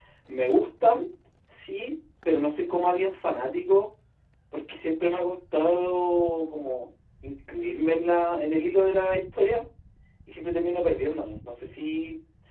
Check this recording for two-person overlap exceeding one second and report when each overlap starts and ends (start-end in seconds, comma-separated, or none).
none